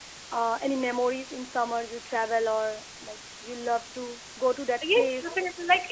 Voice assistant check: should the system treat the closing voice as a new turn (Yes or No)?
Yes